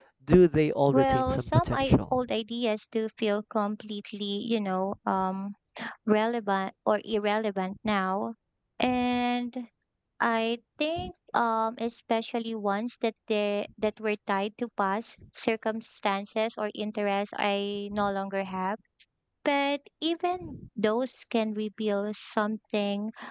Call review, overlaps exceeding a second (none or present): present